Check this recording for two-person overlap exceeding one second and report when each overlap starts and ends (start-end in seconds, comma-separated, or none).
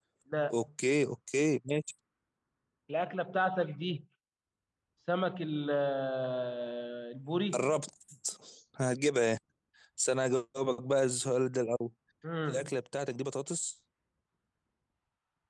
none